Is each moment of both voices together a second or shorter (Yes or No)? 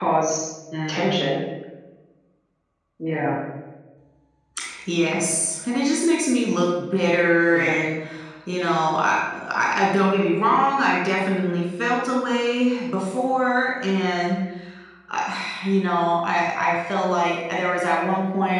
Yes